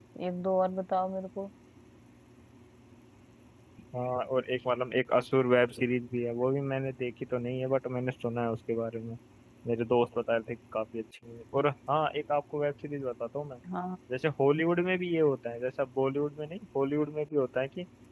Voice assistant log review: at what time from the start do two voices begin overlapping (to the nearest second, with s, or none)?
none